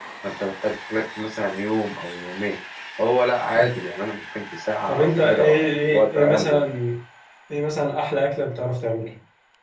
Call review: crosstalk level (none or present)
present